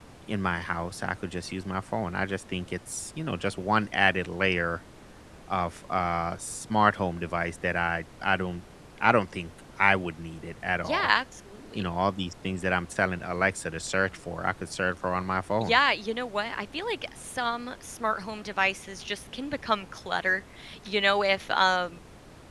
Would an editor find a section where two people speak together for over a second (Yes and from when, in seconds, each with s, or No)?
No